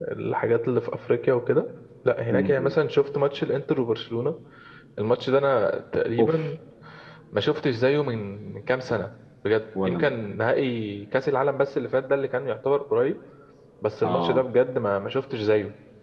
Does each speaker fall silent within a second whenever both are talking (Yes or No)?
Yes